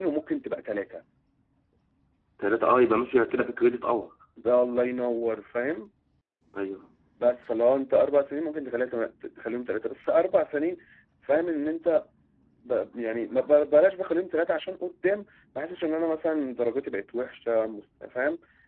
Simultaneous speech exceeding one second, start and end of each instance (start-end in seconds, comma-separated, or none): none